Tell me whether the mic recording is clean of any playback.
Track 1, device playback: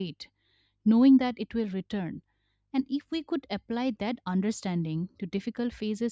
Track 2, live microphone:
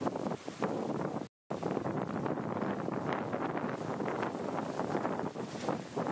Yes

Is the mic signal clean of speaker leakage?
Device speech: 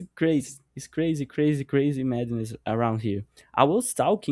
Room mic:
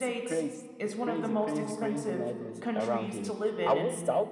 No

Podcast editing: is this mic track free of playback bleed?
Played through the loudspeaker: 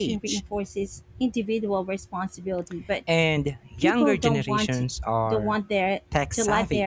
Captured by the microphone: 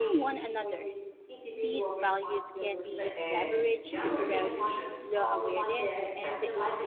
No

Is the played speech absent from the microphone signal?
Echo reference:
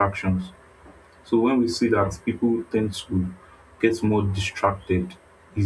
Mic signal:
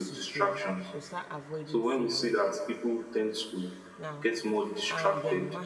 No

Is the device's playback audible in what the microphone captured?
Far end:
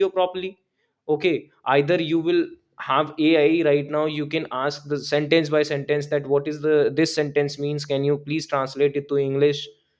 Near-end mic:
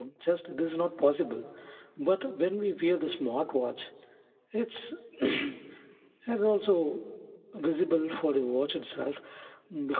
No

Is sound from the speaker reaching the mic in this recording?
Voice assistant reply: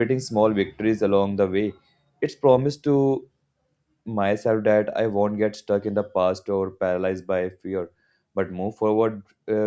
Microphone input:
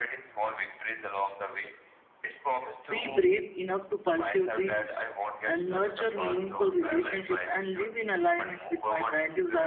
Yes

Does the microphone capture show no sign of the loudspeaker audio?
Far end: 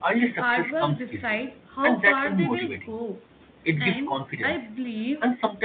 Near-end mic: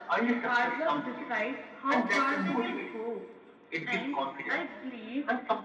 No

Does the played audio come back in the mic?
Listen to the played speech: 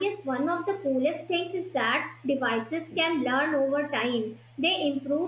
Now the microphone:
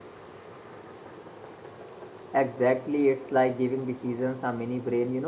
No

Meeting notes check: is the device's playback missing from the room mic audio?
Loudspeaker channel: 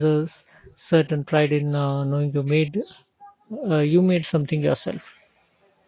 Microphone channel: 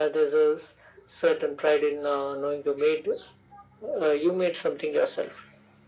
No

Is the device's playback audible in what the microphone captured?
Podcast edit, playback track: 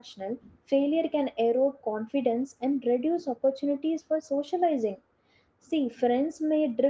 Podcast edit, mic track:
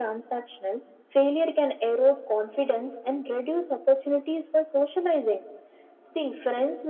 Yes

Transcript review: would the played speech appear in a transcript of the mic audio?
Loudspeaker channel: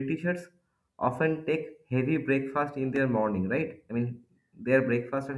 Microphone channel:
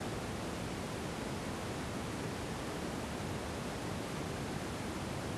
No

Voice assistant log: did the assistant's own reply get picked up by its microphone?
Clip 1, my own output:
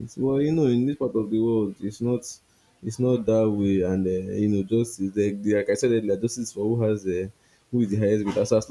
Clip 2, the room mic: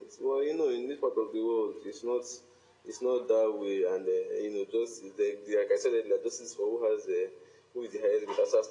Yes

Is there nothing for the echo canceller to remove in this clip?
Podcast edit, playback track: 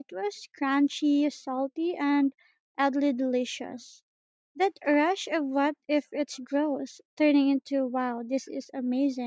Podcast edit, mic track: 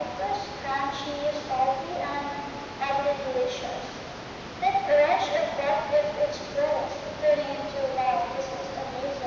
No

